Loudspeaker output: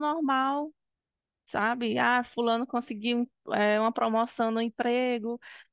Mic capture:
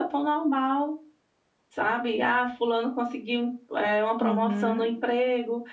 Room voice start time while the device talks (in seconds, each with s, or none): 4.2 s